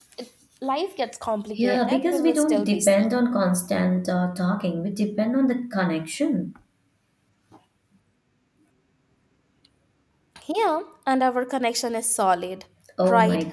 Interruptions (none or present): present